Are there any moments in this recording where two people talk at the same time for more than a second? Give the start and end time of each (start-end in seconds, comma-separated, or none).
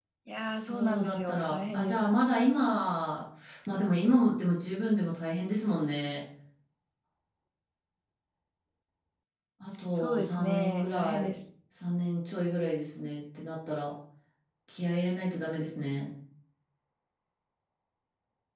0.6-2.0, 10.0-11.3